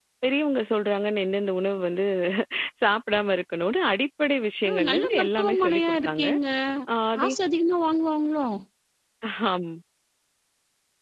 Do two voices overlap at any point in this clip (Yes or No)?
Yes